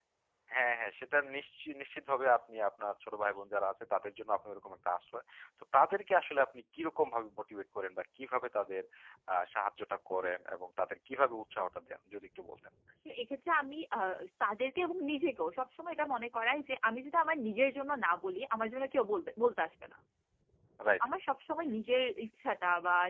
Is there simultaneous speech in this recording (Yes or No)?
No